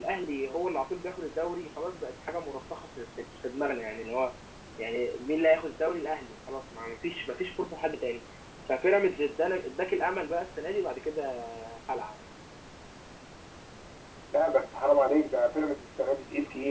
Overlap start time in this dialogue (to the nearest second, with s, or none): none